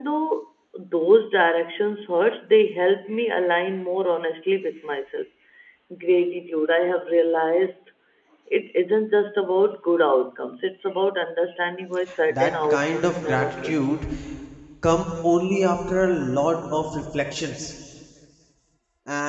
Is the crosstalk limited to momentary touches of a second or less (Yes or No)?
No